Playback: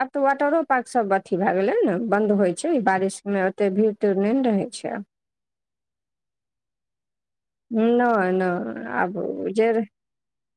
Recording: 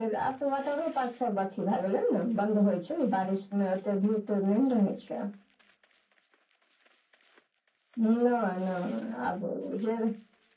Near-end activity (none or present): none